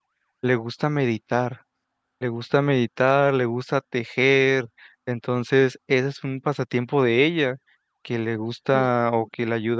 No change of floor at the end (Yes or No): Yes